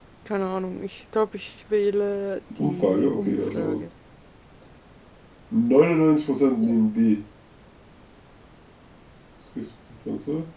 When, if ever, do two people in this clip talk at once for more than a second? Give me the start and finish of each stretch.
2.6-3.8

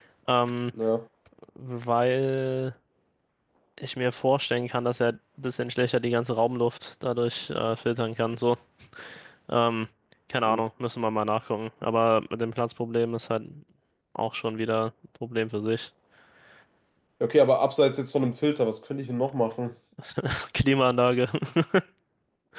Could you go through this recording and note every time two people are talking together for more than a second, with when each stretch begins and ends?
none

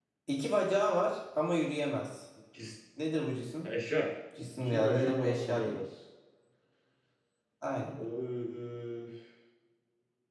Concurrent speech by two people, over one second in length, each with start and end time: 4.5-5.8

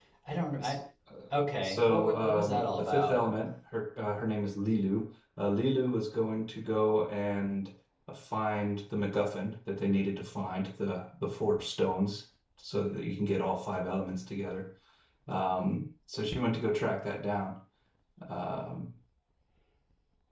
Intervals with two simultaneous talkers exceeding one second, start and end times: 1.5-3.2

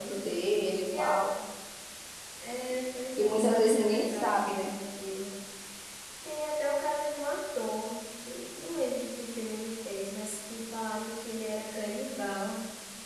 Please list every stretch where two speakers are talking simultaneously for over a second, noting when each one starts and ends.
3.2-4.7

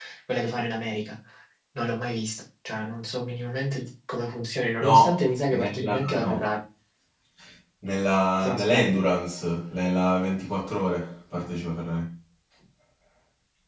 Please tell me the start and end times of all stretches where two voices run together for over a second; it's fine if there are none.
4.8-6.3

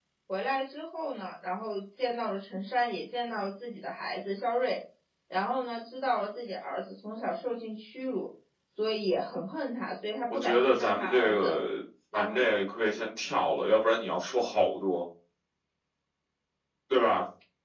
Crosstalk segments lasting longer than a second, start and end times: 10.3-11.6

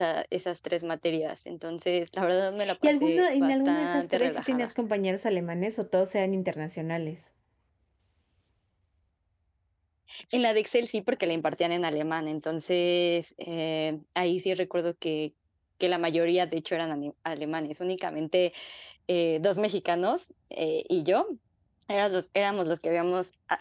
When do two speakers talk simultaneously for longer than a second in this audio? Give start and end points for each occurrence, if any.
2.8-4.7

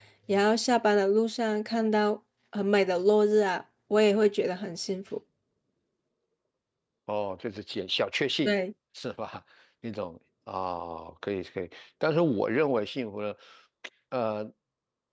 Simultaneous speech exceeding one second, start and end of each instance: none

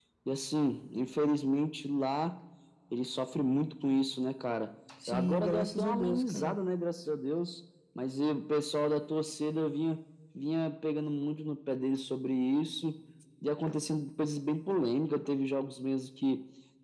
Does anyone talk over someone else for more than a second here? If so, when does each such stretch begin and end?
5.1-6.6

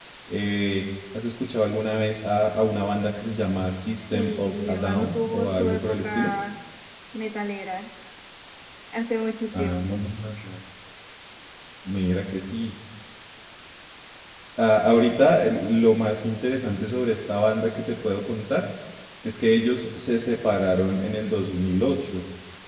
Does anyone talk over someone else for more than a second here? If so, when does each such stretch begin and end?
3.7-6.3

